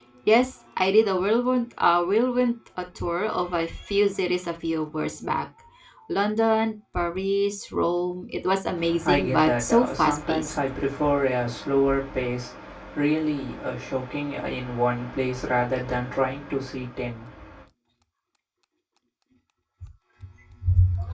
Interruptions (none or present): present